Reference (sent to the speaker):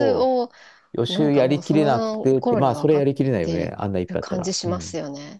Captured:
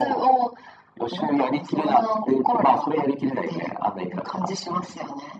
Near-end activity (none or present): none